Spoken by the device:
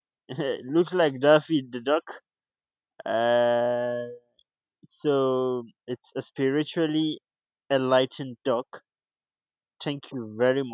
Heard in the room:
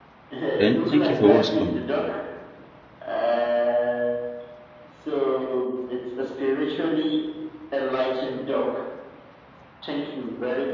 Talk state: both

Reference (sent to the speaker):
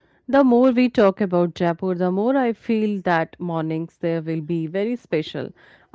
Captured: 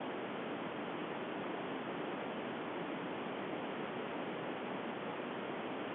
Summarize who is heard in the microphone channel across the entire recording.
neither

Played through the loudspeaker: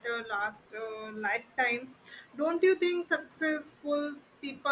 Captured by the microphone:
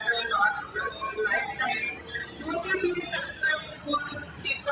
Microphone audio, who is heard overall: echo only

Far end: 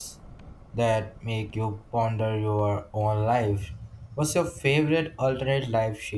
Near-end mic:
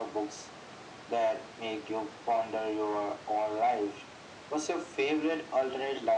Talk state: echo only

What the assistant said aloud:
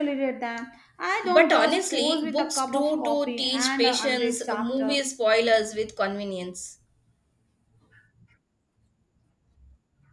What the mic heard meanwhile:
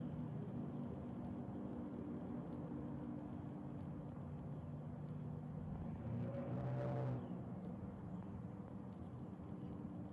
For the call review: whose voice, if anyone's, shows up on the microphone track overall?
neither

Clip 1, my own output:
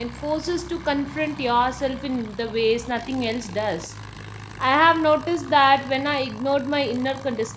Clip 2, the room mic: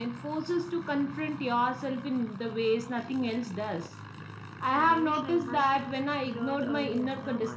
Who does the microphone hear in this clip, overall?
both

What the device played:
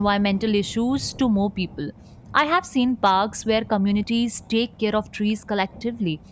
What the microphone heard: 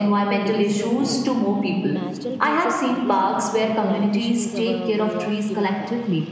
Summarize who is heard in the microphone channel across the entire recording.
both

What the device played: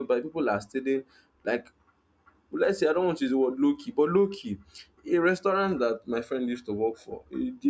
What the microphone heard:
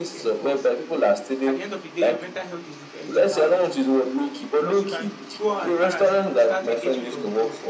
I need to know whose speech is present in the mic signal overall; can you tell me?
both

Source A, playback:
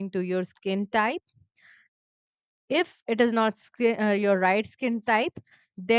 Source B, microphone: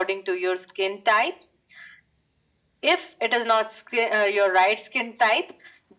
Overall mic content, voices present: echo only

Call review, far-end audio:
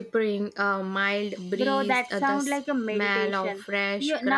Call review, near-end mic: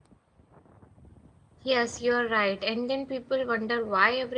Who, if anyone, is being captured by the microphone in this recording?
user only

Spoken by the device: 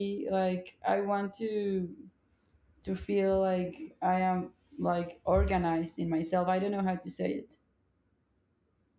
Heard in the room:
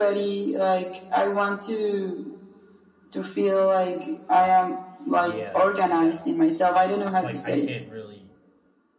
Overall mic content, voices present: both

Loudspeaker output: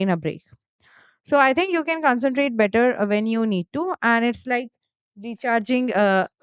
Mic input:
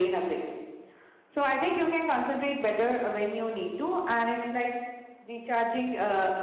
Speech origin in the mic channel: echo only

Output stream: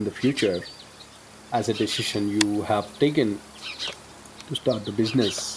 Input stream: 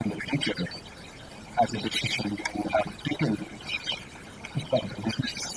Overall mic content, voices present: echo only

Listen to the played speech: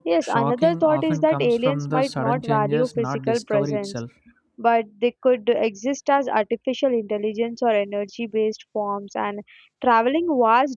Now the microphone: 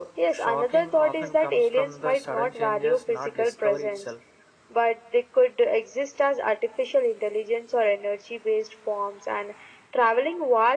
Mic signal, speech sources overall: echo only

